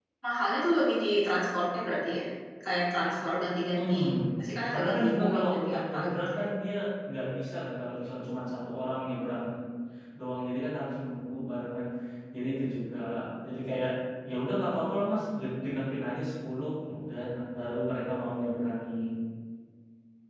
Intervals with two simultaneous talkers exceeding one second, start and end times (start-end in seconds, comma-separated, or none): 4.7-6.4